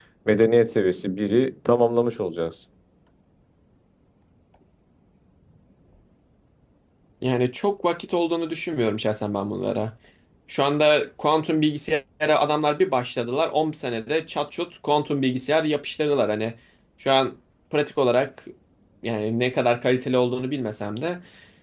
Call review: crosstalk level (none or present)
none